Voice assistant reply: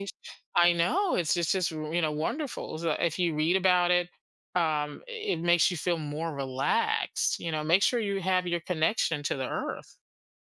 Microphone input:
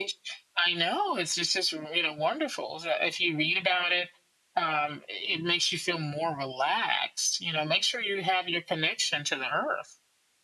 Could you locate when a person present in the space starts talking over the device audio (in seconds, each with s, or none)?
none